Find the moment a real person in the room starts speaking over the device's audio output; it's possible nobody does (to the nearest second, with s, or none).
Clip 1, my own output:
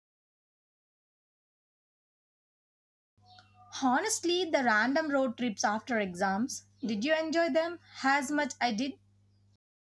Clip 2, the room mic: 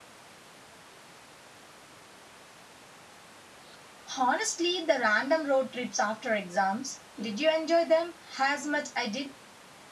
none